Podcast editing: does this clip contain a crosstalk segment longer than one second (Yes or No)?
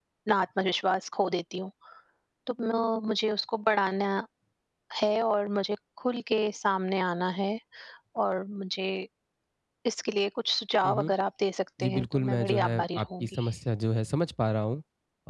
Yes